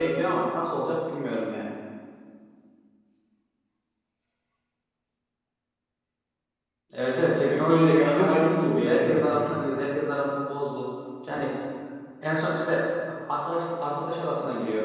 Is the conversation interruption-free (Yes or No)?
No